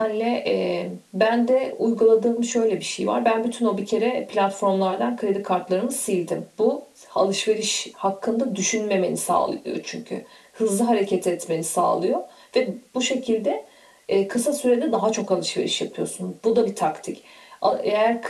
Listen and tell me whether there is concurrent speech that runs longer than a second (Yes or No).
No